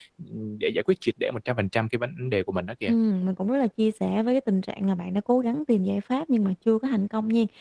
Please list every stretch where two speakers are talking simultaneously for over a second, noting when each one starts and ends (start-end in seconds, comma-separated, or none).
none